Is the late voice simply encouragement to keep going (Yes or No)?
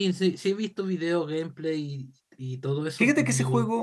No